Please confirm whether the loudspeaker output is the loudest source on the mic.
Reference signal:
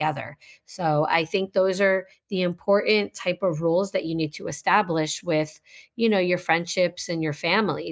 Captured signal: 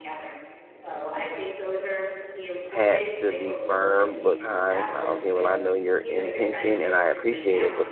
No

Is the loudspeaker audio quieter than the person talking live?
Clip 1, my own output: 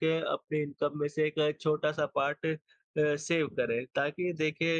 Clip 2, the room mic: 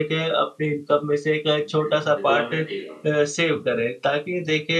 No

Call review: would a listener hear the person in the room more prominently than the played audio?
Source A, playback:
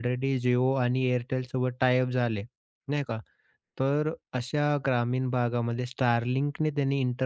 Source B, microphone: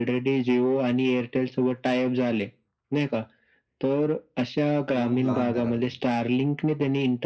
No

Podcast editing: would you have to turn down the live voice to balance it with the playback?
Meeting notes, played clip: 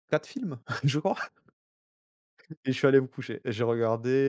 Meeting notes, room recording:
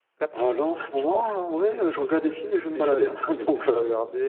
Yes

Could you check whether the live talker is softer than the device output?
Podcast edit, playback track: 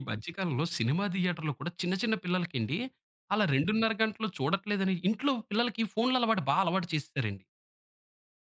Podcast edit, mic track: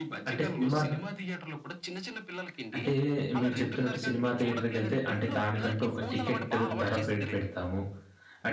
No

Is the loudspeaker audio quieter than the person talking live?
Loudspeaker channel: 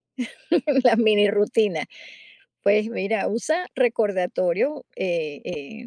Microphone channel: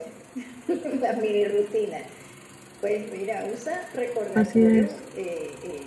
Yes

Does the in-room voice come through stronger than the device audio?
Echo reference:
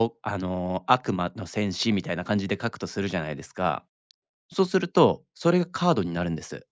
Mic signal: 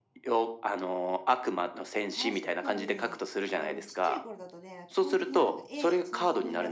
No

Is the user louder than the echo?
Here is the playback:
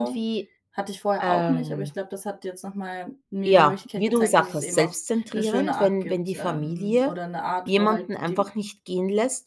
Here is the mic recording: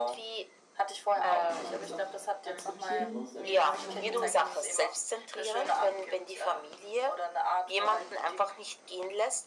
No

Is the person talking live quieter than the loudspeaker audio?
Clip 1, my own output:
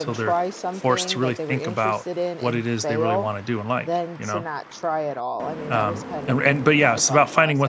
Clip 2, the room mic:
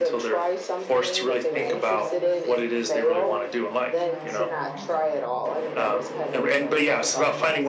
Yes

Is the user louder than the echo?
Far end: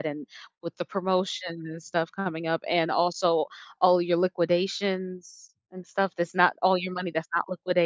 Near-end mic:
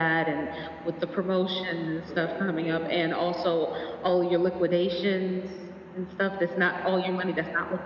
No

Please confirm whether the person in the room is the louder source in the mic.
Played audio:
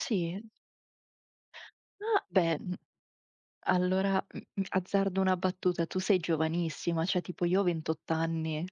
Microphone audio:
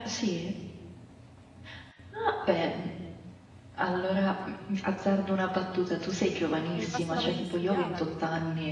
No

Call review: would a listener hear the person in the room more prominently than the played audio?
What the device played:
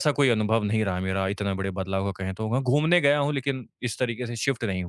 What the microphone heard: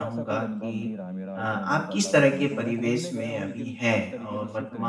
Yes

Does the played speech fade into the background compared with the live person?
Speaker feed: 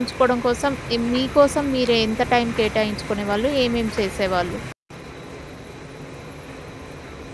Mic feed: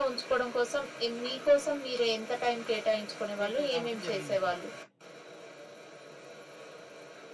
No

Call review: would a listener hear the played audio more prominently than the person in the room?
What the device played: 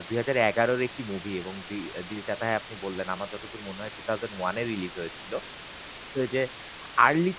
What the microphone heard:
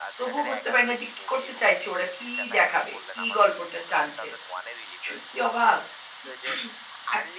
No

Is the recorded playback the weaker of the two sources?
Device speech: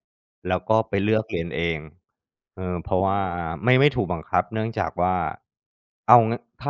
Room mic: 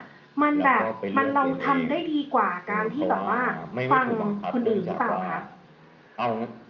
Yes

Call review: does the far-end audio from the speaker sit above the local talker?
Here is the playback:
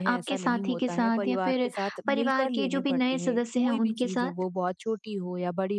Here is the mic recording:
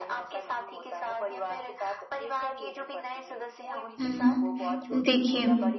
No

